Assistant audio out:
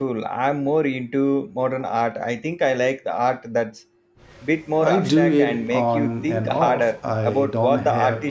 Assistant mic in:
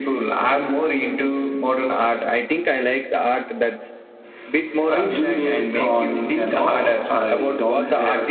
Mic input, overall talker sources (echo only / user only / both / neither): both